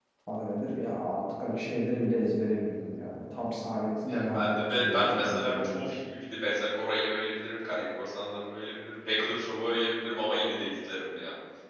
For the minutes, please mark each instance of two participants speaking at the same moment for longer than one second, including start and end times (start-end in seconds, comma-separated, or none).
4.1-6.0